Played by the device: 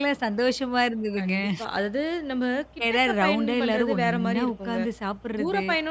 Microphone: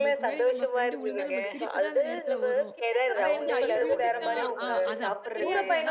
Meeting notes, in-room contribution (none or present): present